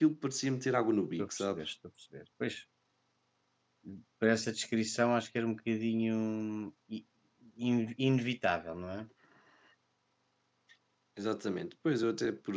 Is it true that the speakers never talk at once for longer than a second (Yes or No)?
Yes